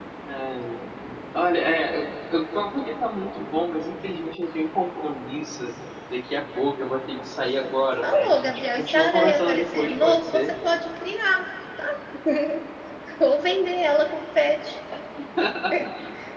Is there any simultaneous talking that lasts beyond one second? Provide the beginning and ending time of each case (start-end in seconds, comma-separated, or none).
8.0-10.5